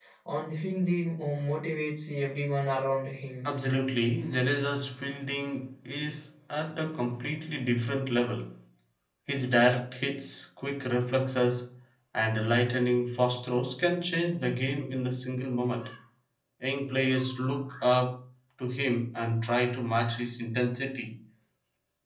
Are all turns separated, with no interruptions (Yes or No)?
Yes